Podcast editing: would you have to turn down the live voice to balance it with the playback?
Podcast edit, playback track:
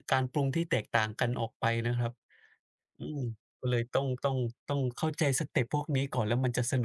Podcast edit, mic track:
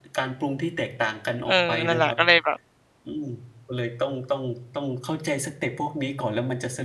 Yes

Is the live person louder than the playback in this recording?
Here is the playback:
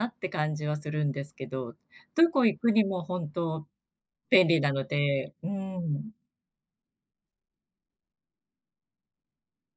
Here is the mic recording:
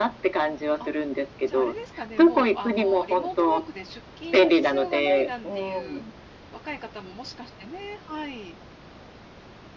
No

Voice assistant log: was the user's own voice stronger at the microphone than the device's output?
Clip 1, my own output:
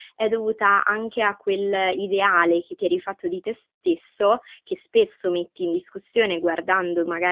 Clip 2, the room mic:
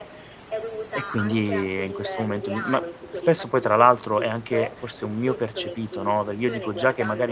Yes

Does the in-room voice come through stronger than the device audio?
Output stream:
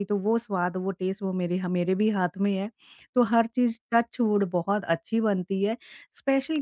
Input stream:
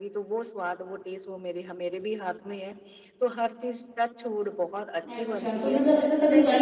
Yes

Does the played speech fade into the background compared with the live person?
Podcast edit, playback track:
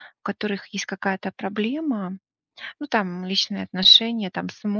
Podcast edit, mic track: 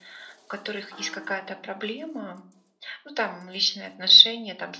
No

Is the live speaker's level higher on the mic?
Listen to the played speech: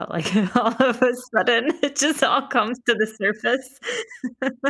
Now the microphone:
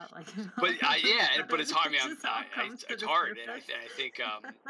Yes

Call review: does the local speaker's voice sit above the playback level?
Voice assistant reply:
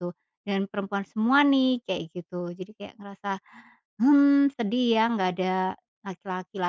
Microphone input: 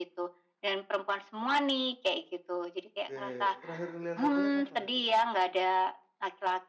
No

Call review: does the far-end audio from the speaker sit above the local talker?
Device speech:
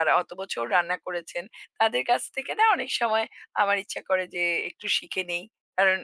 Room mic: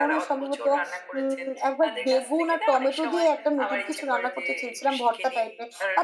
No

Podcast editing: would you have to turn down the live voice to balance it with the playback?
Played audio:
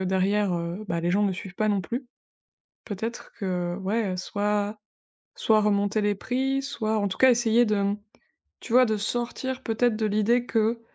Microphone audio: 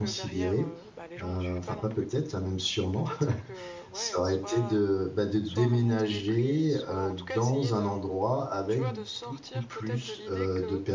Yes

